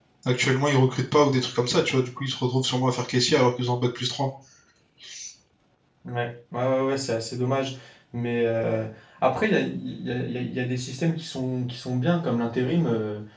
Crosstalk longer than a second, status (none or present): none